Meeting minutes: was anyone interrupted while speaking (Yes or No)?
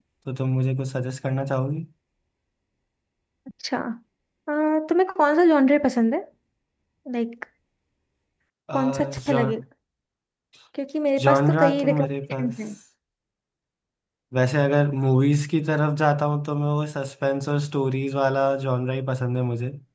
Yes